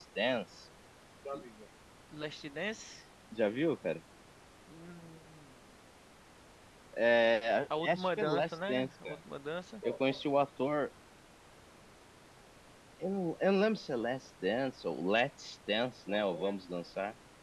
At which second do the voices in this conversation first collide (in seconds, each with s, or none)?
7.8 s